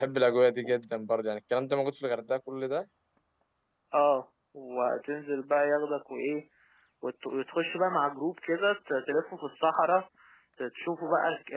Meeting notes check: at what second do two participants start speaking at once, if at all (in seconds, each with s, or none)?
none